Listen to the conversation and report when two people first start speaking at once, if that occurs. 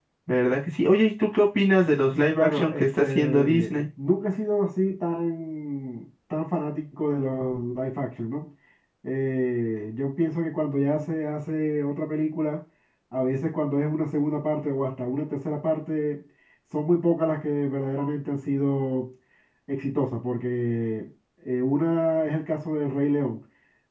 2.4 s

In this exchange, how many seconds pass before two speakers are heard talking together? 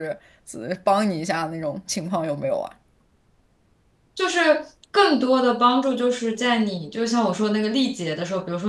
none

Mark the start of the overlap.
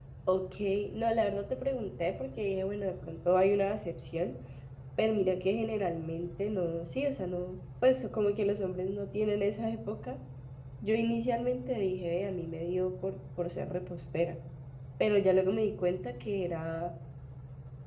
none

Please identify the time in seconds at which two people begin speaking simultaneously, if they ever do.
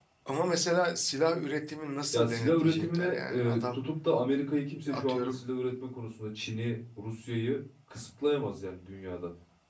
2.1 s

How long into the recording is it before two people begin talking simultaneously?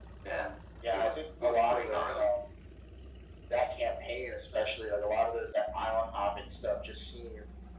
0.9 s

